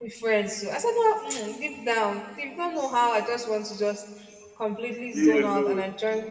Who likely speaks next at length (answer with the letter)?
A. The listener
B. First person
B